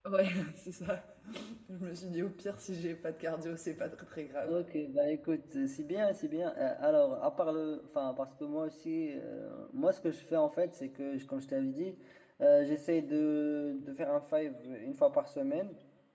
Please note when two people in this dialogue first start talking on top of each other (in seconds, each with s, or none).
none